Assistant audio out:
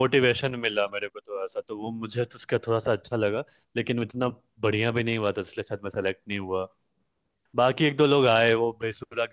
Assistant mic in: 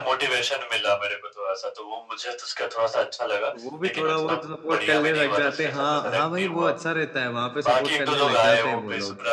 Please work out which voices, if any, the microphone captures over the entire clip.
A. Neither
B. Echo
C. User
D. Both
D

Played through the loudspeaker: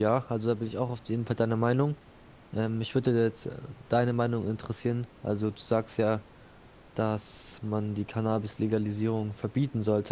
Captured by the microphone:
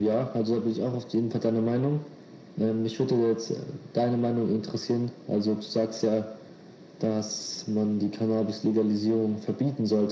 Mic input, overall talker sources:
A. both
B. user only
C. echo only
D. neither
C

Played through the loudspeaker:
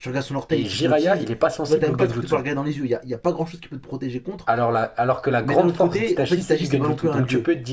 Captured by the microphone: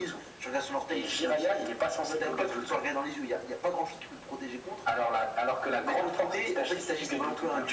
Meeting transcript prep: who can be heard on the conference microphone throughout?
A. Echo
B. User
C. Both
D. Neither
A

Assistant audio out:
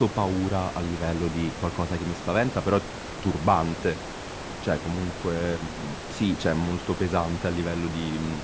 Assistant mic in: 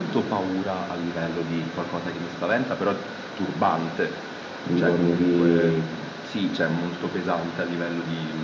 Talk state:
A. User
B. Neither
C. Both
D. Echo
C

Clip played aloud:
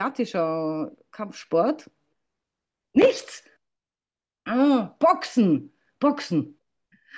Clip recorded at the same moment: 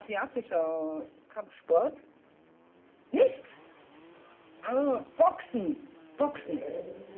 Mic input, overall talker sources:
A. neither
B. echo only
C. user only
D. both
D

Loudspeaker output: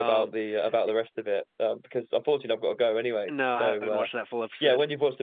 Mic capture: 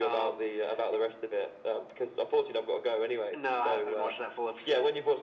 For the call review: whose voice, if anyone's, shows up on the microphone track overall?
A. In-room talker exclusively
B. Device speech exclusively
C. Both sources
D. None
B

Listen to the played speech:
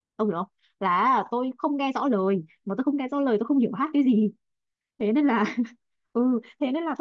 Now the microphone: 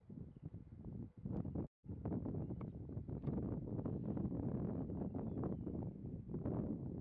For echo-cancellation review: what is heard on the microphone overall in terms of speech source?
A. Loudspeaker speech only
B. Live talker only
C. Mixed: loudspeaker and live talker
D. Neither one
D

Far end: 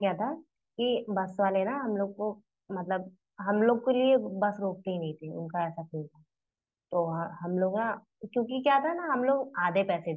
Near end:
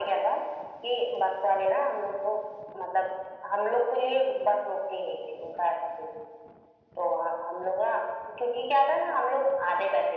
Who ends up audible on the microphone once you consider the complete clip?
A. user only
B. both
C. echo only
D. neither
C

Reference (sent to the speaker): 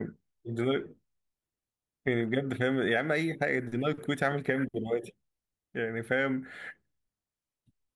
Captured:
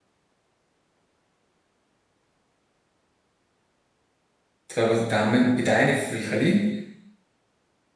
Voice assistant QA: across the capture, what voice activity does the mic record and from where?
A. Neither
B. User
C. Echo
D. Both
B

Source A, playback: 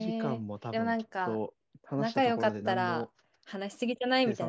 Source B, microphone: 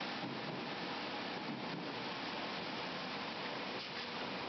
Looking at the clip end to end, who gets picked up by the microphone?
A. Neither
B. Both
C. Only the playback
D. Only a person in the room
A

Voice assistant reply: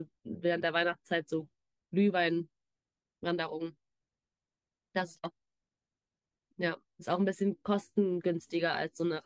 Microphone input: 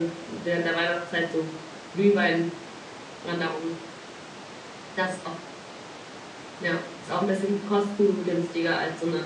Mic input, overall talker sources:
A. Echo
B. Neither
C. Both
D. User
A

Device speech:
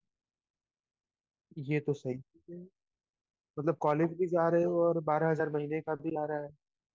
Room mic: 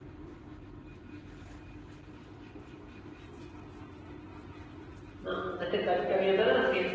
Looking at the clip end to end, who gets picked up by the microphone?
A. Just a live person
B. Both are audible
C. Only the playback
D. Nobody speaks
A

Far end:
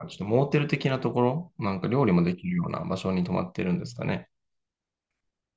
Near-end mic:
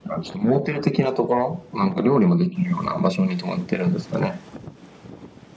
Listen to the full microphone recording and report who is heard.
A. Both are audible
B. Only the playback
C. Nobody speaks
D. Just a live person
B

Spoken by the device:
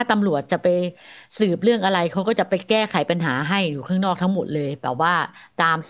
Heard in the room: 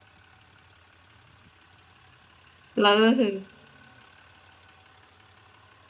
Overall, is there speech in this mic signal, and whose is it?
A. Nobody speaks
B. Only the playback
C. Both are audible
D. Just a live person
D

